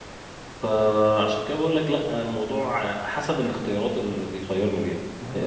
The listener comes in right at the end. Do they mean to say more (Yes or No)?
Yes